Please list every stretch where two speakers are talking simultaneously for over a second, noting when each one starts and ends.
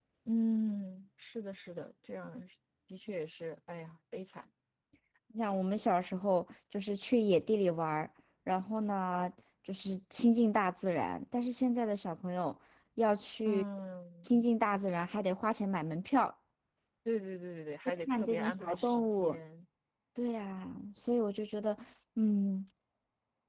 18.0-19.4

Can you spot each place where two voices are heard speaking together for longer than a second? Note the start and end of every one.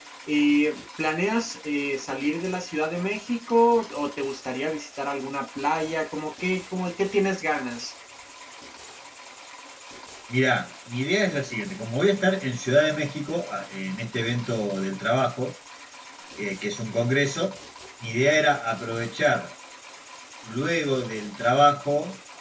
none

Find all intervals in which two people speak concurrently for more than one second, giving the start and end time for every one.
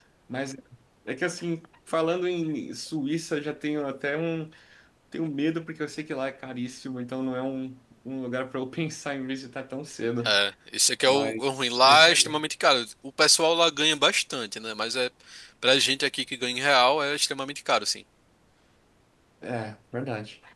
11.1-12.4

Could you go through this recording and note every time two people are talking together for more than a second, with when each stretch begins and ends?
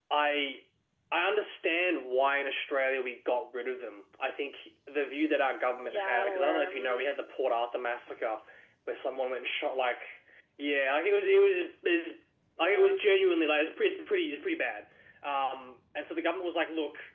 5.8-7.0

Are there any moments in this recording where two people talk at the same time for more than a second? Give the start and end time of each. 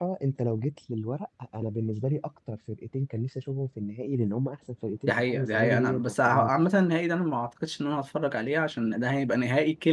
5.1-6.7

